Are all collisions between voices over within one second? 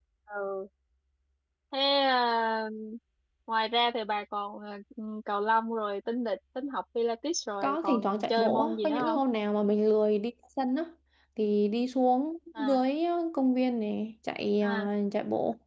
No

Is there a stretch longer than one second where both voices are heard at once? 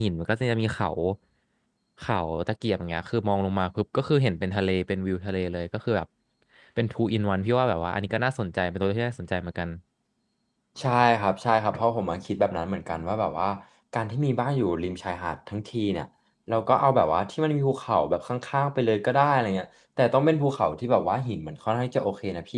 No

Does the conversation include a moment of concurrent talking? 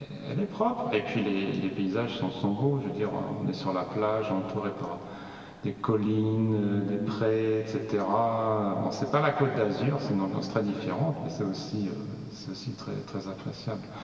No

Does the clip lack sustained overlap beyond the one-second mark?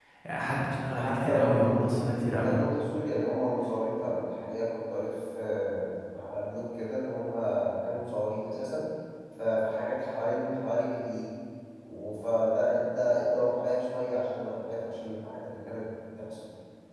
No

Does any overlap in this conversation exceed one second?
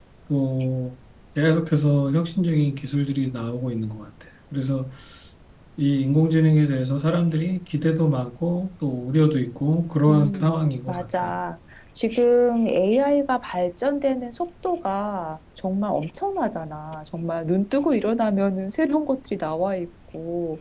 Yes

